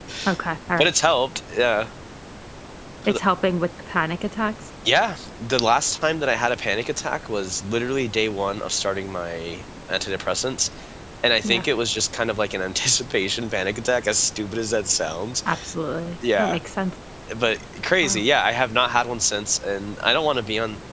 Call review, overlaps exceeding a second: none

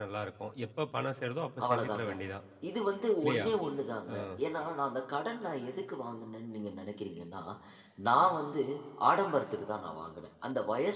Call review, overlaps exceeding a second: none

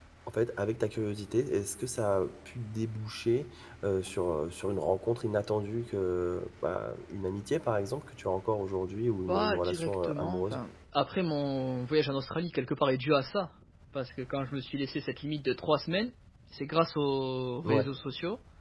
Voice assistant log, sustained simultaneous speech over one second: present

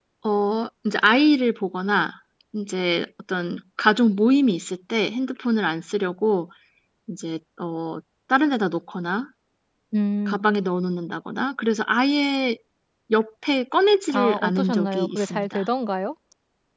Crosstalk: present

